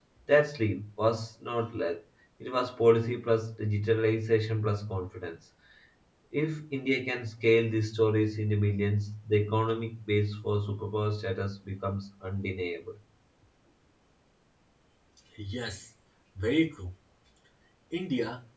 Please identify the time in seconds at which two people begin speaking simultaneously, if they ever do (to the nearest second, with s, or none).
none